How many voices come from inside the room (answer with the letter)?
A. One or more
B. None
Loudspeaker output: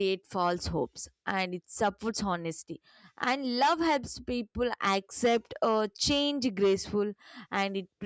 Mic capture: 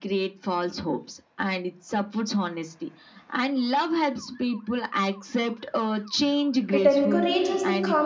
A